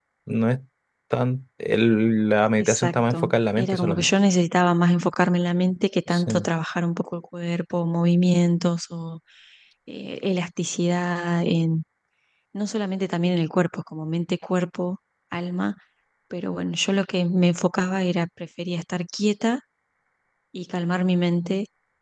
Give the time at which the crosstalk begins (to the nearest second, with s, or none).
3 s